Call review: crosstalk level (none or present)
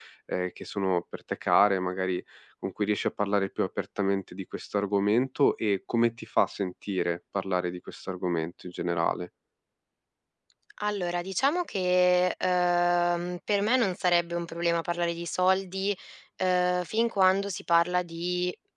none